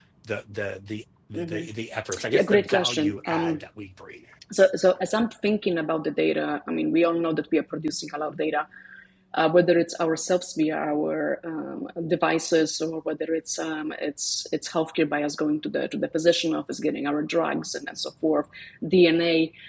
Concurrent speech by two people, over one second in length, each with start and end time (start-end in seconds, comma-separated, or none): 2.3-3.6